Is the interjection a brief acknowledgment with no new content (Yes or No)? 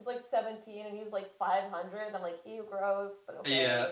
No